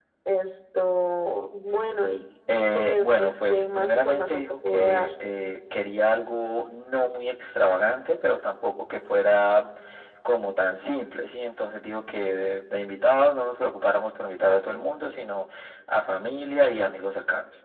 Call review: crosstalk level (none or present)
present